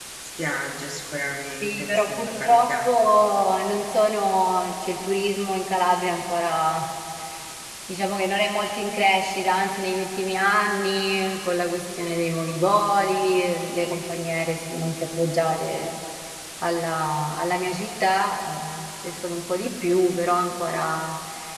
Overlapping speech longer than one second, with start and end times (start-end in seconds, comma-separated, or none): 1.6-2.9